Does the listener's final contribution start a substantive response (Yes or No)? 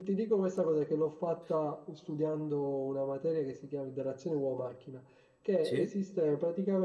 No